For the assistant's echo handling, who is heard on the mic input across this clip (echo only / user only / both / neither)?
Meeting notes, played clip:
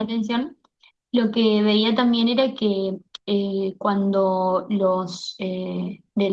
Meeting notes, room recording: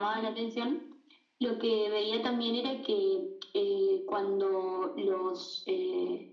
echo only